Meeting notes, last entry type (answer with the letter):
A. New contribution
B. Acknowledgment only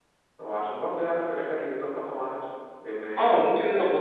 A